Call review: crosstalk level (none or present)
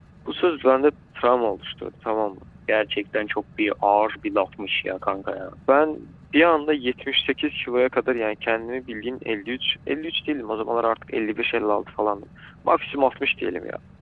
none